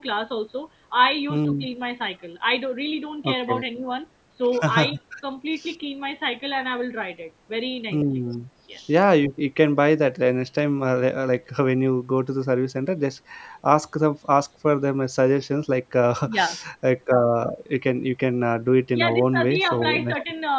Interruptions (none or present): present